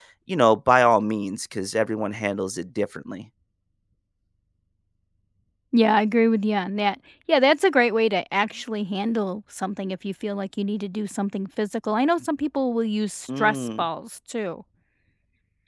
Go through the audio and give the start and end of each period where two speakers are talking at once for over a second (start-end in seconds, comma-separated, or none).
none